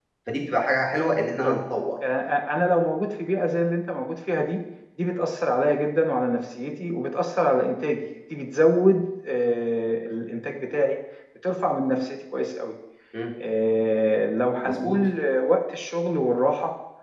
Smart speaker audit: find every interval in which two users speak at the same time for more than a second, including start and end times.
none

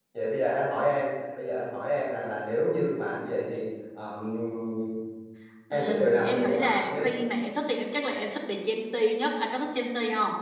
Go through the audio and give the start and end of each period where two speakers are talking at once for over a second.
5.7-7.0

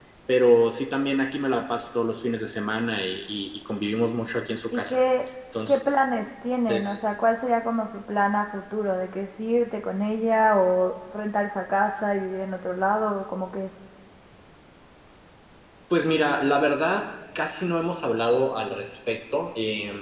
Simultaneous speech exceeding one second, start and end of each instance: none

